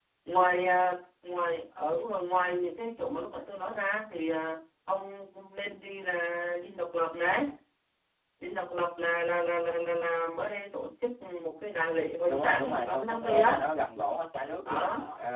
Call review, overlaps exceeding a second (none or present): present